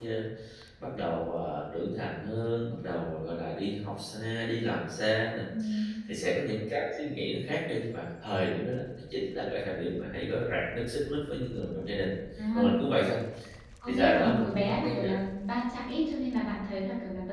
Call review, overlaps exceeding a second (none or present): present